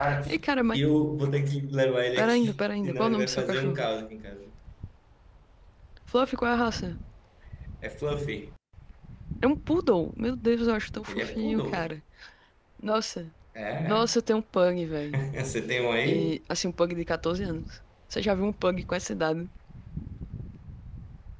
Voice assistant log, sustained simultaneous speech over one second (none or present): present